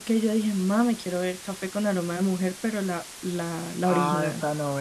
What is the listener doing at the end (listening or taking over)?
taking over